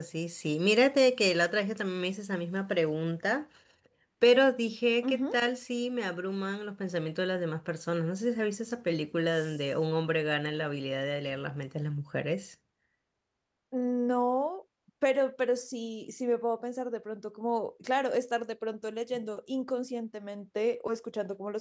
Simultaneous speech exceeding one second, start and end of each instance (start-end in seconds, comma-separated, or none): none